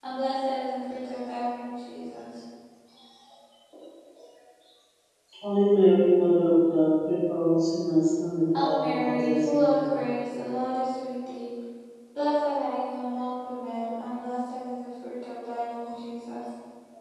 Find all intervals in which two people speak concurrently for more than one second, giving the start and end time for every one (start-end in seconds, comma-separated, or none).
8.5-9.9